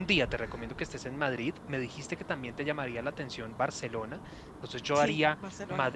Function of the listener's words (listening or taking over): listening